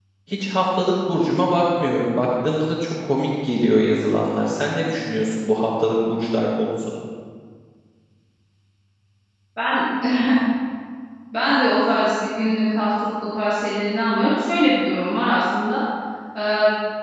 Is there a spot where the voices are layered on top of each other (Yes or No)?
No